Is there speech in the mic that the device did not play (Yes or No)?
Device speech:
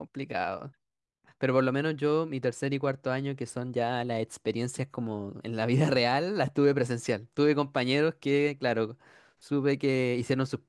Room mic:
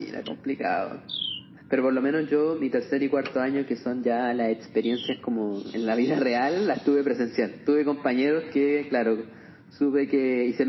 No